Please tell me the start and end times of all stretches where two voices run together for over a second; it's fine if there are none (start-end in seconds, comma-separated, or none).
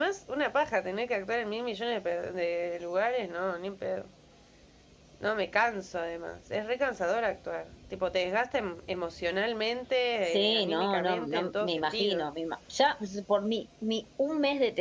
10.3-12.2